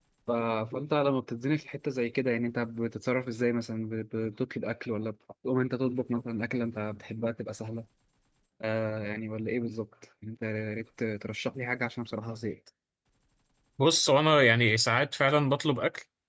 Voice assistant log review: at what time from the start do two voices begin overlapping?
none

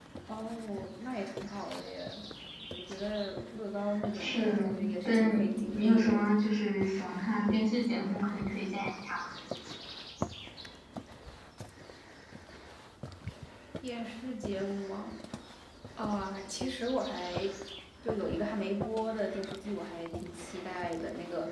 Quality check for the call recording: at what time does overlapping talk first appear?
4.1 s

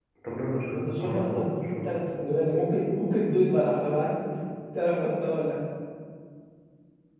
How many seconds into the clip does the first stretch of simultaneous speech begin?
0.7 s

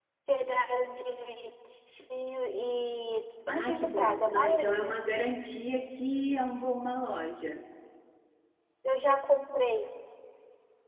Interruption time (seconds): 3.5 s

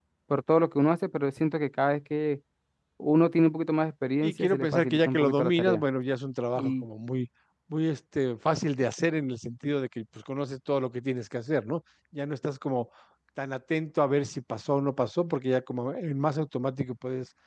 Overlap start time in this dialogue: 4.2 s

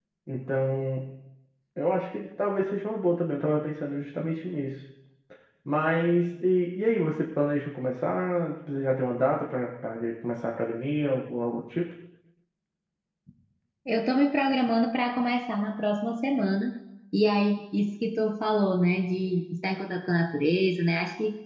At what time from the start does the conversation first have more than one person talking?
none

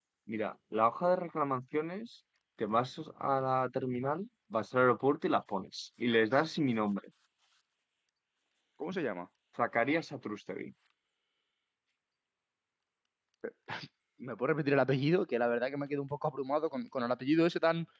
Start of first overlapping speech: none

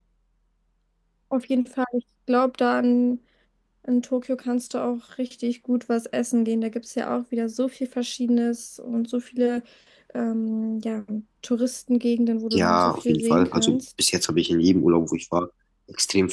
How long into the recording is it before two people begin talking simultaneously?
12.5 s

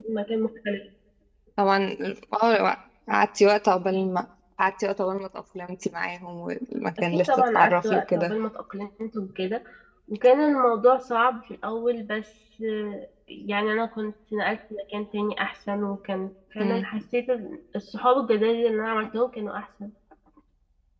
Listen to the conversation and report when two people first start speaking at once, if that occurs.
7.0 s

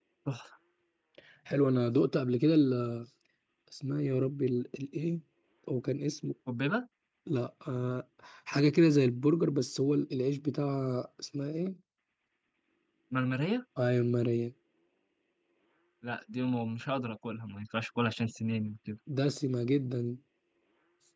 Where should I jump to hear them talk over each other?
none

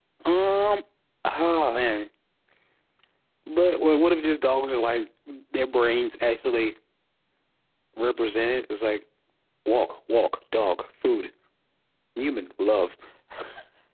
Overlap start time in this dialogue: none

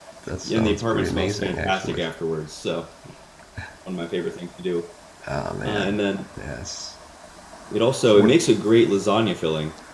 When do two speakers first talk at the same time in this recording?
0.5 s

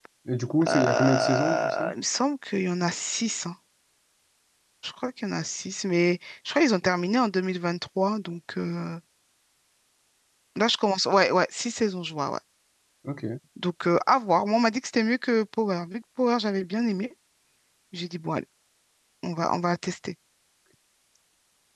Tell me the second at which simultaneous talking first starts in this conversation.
0.7 s

